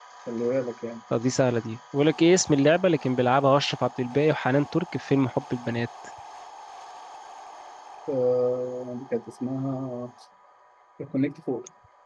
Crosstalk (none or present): none